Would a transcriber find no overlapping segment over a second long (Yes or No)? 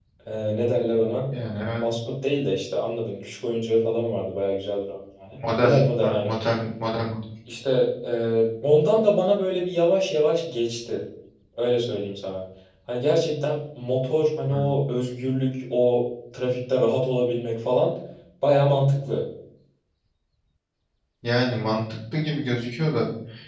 Yes